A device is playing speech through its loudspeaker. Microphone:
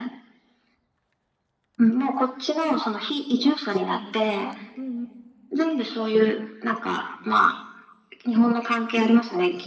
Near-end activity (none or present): present